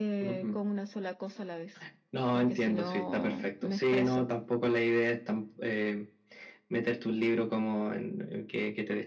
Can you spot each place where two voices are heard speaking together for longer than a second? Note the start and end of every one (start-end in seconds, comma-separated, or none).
2.3-4.2